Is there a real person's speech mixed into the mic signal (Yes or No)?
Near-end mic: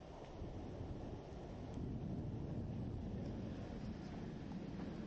No